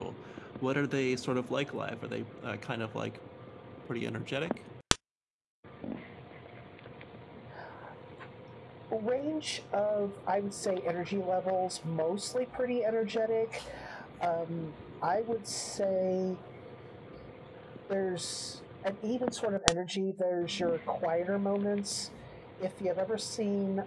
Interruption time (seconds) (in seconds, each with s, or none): none